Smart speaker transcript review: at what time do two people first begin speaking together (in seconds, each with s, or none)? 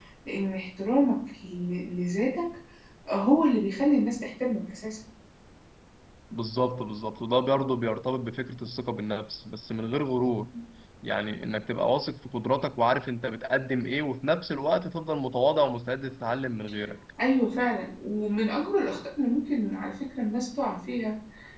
none